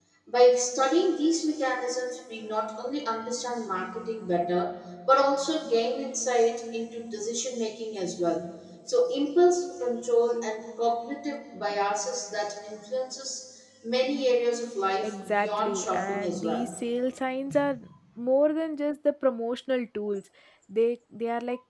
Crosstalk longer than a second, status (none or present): present